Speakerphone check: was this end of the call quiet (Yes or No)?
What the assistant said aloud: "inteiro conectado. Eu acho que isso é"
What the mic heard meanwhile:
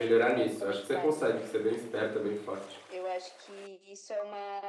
No